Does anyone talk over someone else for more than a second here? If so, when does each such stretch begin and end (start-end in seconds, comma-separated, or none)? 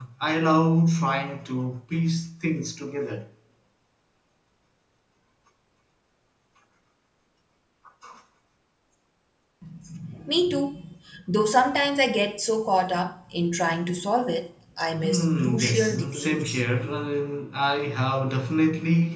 15.0-16.6